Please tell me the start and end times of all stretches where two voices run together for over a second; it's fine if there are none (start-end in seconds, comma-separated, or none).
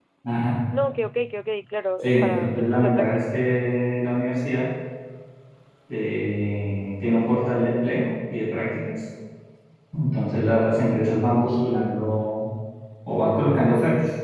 2.0-3.2